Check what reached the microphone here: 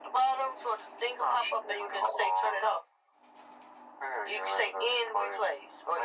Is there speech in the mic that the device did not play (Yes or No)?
No